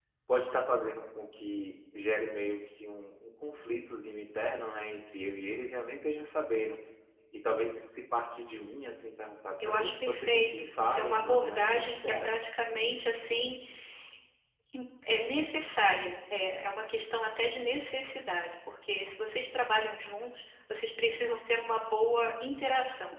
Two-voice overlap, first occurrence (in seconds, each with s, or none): 9.6 s